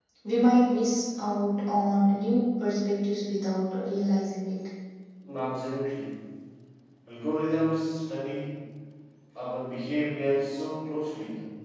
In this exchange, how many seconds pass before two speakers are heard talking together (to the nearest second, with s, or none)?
none